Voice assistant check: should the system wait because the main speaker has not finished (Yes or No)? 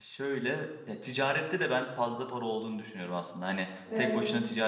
Yes